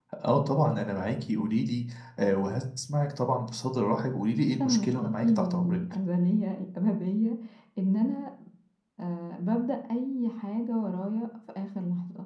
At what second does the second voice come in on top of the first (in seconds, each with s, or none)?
4.6 s